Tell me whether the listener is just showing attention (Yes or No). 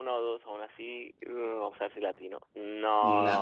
No